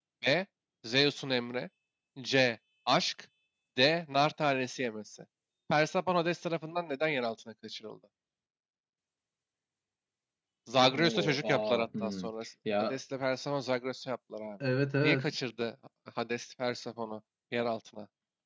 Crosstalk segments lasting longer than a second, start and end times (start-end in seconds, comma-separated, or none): 10.9-12.3